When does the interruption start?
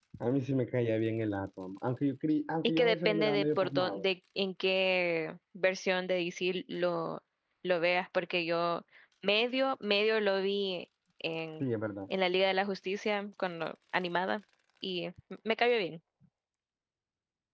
2.8 s

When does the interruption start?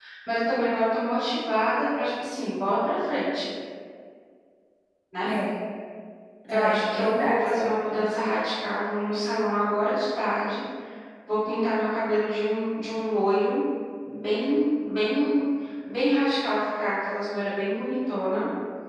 6.5 s

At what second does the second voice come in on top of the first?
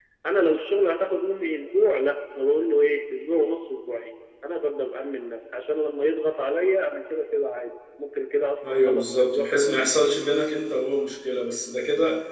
8.6 s

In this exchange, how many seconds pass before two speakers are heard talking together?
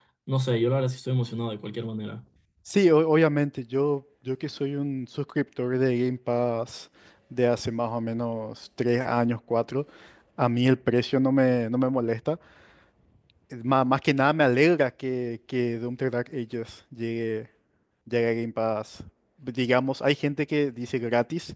none

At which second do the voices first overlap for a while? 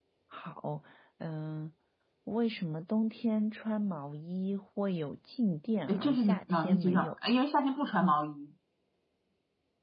5.9 s

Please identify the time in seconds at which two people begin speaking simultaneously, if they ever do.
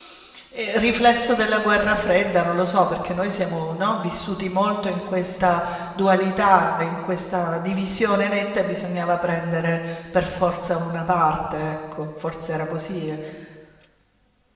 none

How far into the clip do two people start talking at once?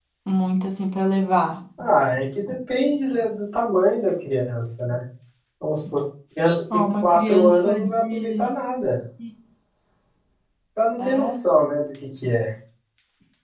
6.7 s

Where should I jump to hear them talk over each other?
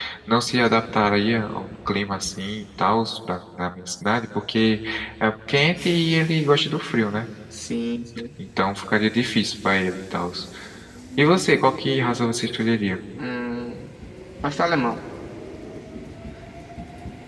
none

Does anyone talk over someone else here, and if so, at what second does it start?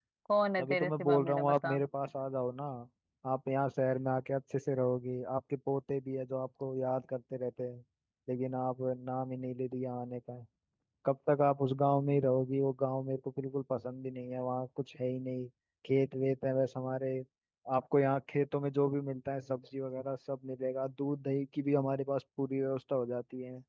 0.6 s

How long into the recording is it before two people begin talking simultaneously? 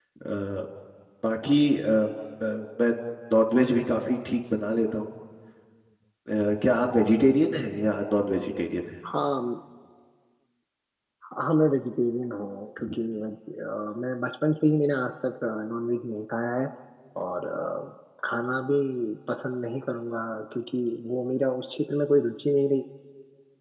none

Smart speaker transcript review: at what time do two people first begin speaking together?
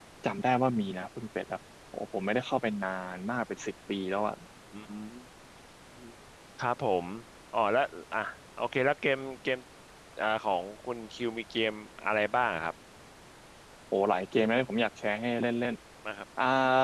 none

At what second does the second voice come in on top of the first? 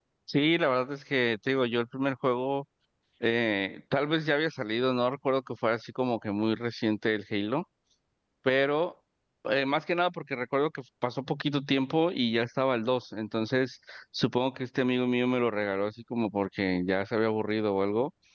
none

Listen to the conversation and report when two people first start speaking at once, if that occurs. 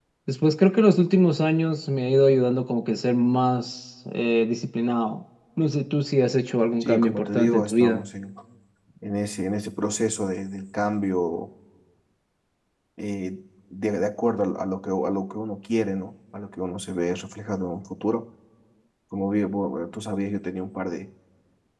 6.8 s

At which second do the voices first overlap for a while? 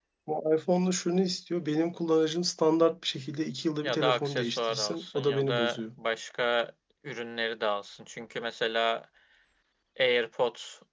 3.8 s

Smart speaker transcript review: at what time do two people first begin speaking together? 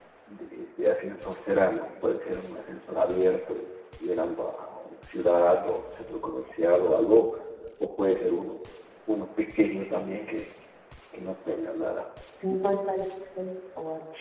none

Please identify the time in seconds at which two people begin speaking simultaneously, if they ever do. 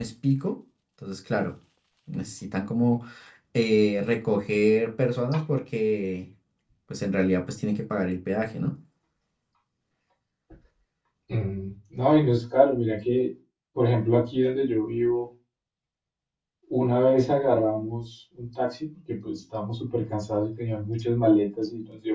none

